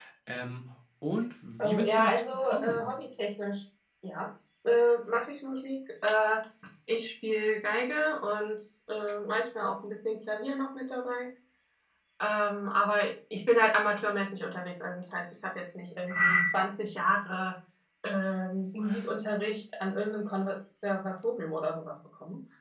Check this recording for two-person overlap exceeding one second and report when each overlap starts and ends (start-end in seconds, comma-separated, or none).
1.6-2.9